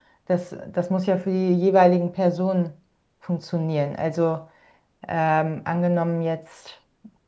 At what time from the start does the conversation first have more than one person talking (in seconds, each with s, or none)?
none